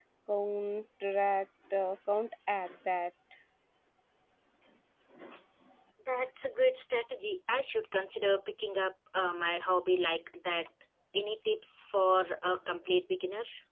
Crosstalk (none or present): none